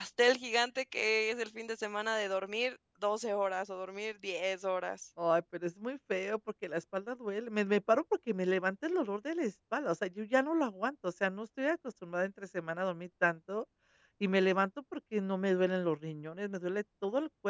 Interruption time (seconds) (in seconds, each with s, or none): none